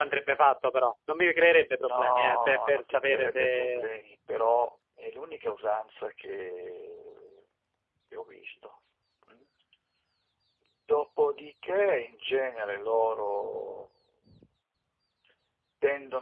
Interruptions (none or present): present